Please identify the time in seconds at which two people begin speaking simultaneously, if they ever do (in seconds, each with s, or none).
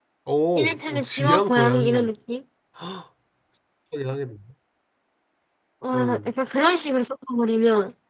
0.6 s